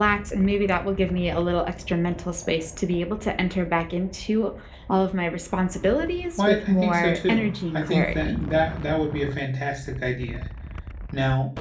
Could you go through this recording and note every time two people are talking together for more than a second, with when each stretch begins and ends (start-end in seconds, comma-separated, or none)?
6.4-8.4